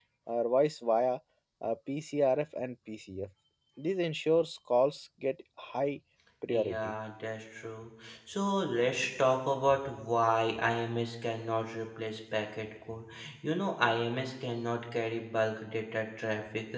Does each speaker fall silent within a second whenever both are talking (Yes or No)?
Yes